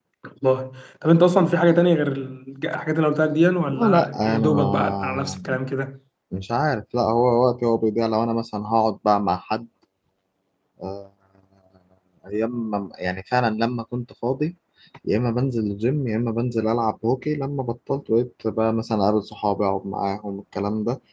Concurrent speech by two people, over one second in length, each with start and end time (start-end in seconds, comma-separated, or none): 3.7-5.4